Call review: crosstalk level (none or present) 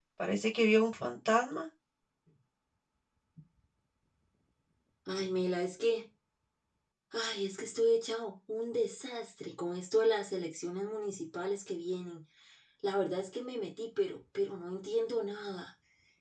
none